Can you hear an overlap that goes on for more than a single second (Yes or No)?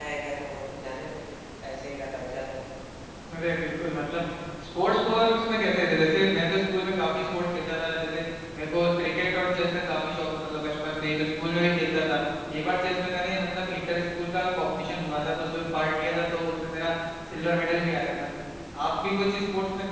No